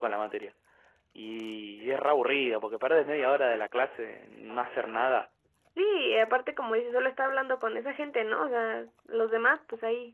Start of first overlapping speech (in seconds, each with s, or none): none